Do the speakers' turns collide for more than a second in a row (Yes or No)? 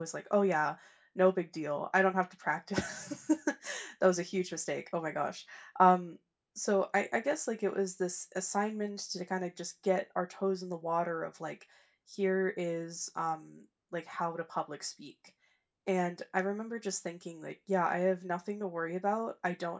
No